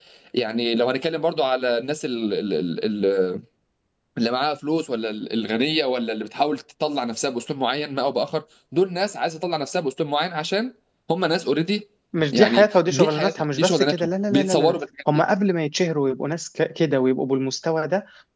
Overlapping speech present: Yes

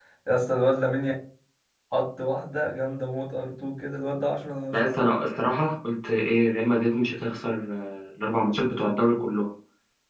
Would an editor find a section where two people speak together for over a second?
No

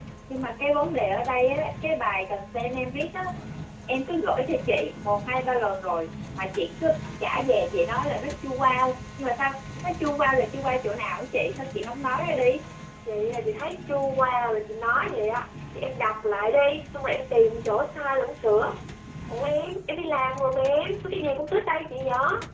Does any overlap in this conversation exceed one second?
No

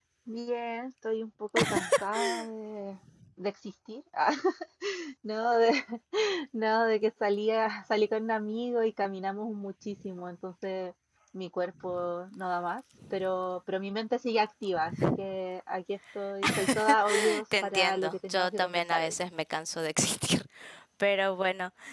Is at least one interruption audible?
Yes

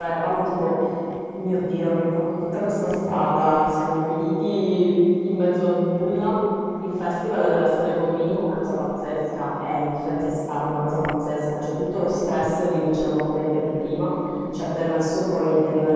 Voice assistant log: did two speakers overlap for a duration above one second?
No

